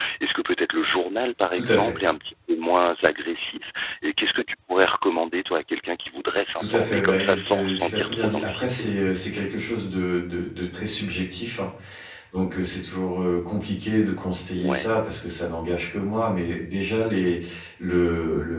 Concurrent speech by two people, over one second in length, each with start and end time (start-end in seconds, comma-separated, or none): 6.6-8.7